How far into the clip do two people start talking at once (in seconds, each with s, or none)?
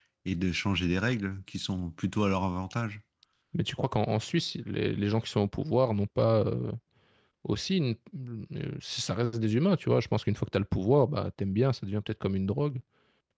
none